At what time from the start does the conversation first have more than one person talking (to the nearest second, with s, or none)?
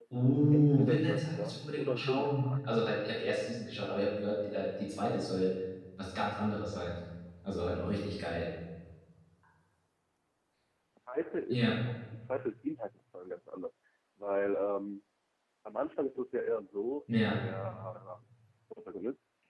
1 s